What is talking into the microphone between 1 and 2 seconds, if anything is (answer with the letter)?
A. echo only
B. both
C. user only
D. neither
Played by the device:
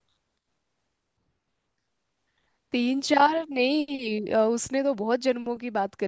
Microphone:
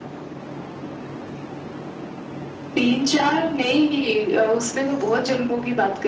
D